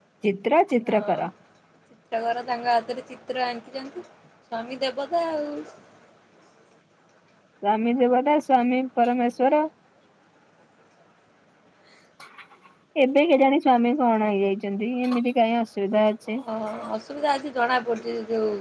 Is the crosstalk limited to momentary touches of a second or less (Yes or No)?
Yes